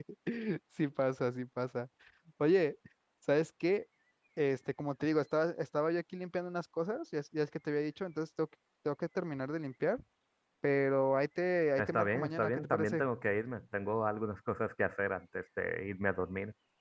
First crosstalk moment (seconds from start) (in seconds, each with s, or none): 11.8 s